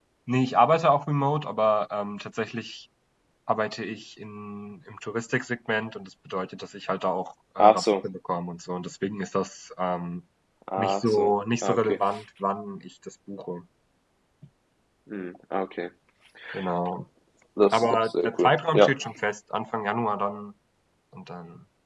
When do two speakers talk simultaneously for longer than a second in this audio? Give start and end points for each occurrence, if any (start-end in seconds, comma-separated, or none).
17.7-18.9